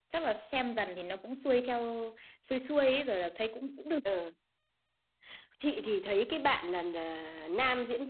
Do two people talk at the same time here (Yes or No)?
No